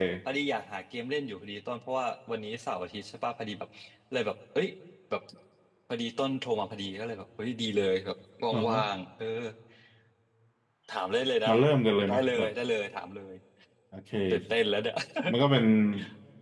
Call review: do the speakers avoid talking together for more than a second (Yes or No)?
Yes